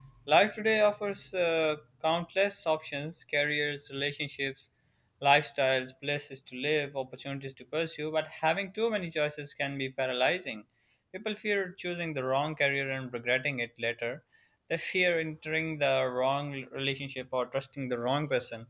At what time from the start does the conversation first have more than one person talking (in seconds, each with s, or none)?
none